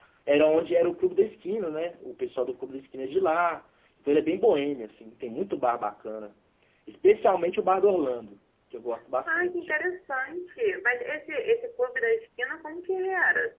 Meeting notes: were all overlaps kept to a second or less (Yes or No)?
Yes